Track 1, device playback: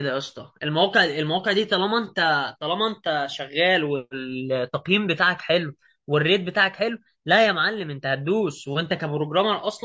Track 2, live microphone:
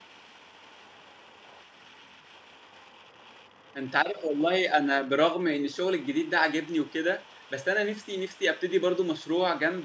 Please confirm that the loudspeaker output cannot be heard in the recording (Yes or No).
Yes